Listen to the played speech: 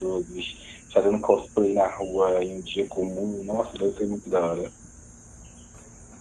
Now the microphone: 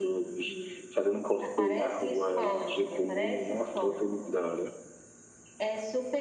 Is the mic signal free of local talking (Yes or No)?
No